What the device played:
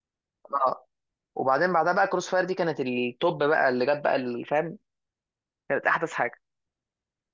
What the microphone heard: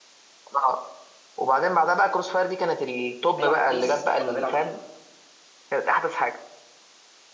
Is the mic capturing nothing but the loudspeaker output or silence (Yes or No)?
No